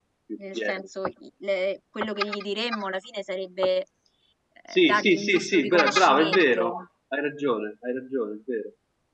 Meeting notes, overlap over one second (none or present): present